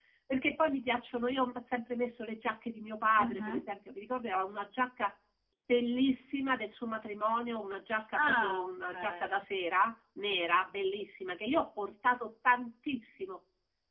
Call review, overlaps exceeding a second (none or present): present